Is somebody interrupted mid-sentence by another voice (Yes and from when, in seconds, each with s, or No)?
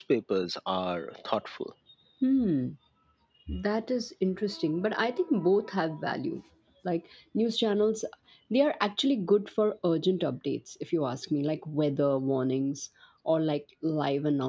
No